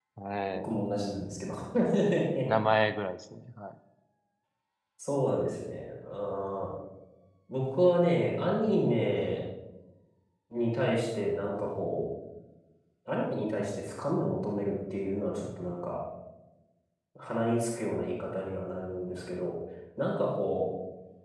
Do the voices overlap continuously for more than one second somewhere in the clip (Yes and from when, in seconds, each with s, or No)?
No